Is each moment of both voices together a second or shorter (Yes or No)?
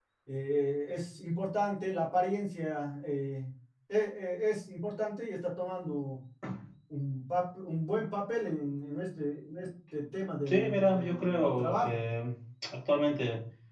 No